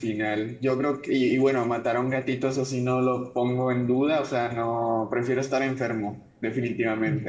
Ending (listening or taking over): taking over